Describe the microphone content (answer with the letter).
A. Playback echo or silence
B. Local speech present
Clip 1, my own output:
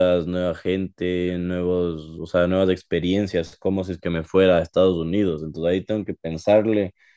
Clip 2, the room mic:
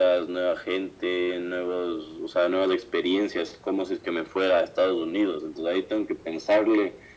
A